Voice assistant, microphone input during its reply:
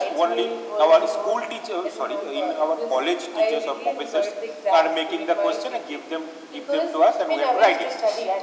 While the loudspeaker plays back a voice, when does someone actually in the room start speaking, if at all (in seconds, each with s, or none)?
none